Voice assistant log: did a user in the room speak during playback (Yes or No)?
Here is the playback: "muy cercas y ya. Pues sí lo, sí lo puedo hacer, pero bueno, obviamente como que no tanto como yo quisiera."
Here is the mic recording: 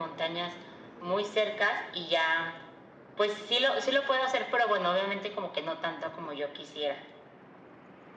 No